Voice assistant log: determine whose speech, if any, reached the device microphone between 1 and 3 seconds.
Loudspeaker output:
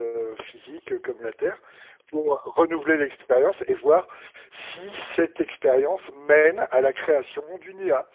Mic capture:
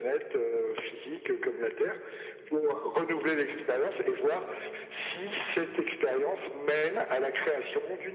echo only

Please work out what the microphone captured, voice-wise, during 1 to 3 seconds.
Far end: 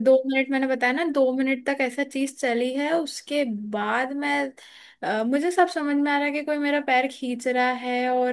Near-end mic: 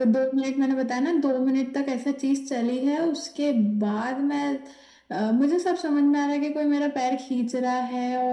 echo only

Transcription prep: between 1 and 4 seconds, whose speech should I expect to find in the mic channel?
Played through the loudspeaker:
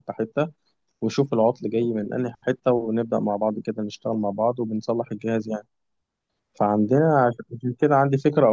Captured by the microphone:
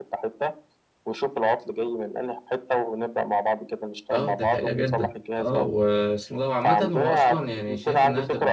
echo only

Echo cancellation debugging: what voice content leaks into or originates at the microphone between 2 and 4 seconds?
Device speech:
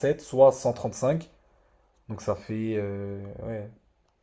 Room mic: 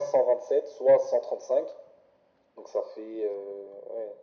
echo only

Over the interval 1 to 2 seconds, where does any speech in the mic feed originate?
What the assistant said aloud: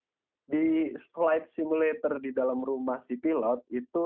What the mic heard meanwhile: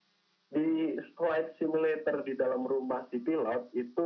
echo only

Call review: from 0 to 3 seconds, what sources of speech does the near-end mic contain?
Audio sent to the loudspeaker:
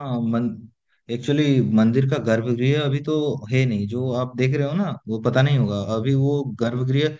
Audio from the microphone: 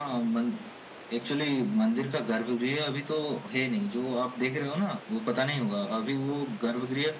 echo only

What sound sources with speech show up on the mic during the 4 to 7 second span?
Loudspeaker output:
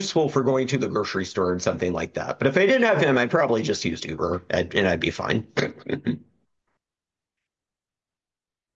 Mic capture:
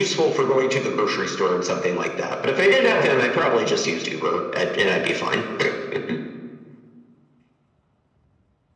echo only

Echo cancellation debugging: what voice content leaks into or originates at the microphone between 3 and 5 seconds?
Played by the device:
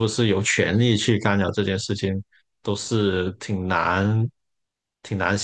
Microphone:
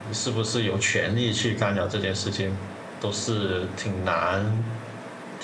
echo only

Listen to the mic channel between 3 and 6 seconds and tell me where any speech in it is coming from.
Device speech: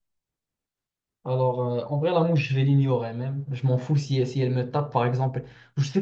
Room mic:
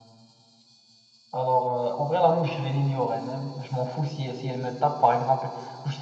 echo only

